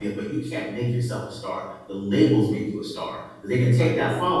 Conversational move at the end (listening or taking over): listening